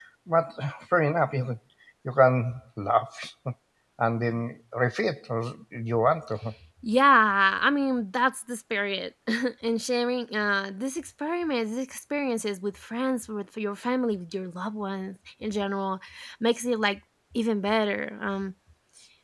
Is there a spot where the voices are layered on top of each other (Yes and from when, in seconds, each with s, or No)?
No